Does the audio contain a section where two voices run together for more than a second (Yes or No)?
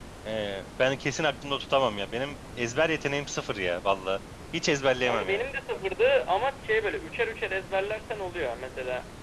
No